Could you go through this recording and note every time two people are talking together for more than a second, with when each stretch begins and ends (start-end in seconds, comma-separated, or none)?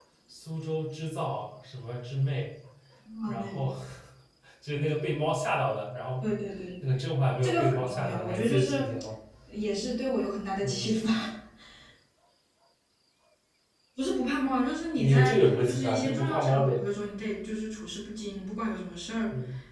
7.4-8.8, 15.0-16.7